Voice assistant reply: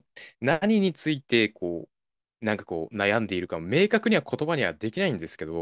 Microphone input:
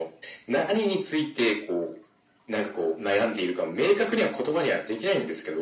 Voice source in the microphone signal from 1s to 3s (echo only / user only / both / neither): echo only